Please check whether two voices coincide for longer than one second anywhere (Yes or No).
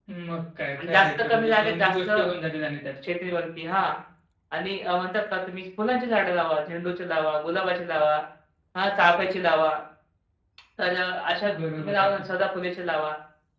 Yes